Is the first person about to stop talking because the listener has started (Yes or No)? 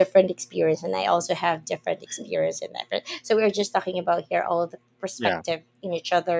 No